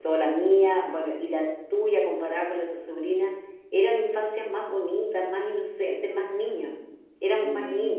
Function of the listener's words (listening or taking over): taking over